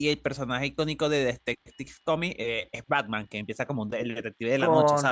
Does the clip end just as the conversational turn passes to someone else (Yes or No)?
Yes